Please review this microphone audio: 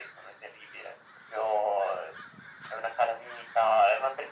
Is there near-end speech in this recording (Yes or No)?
No